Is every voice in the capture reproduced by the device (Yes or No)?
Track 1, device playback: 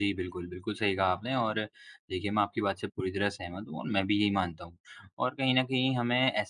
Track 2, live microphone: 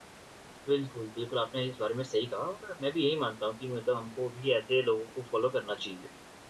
No